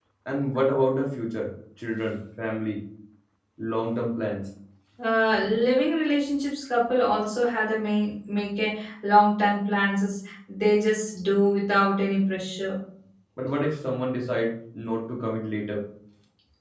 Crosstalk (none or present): none